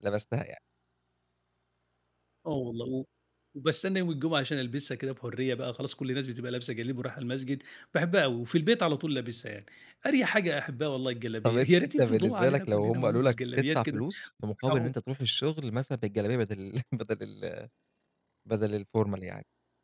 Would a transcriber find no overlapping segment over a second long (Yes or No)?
No